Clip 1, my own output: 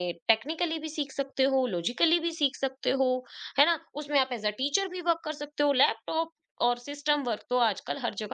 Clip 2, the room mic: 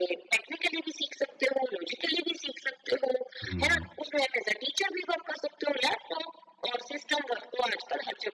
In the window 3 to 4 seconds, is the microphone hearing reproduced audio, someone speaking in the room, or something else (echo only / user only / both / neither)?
both